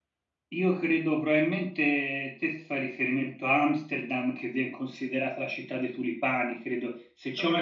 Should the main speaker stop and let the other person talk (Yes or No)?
No